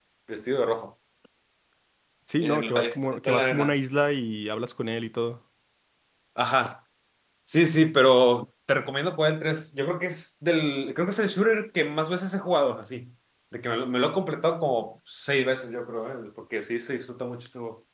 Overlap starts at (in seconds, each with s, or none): 2.4 s